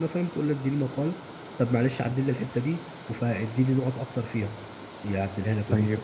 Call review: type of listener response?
taking over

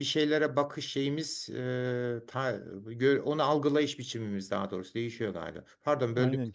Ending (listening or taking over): taking over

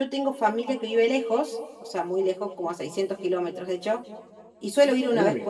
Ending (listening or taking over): listening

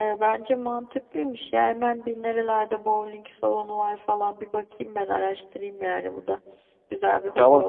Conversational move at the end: taking over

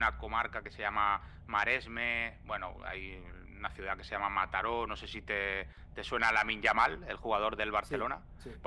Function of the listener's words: listening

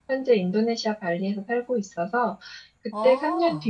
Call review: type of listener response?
listening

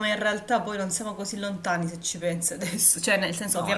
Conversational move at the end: taking over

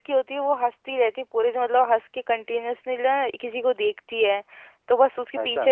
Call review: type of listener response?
listening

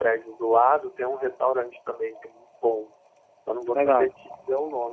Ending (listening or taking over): listening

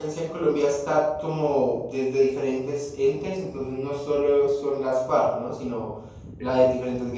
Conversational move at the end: listening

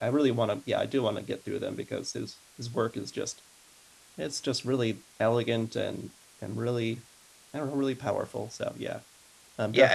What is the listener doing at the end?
taking over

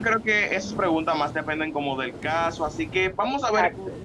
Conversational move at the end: listening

